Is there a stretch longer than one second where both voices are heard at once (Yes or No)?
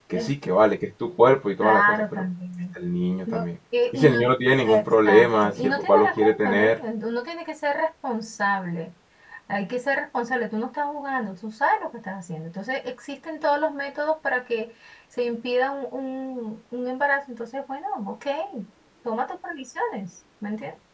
Yes